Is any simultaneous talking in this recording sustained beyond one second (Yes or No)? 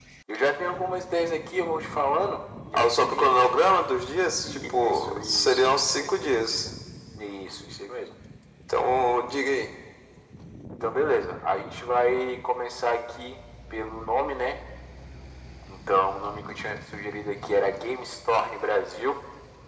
Yes